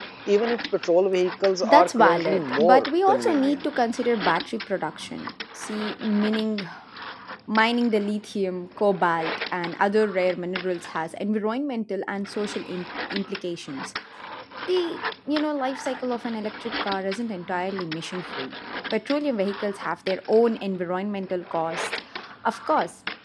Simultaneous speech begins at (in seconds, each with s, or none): 1.6 s